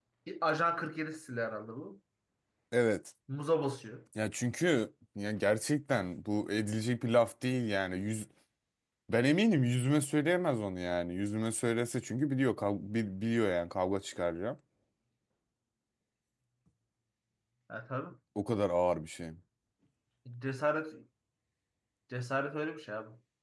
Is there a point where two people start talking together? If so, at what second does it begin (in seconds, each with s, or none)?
none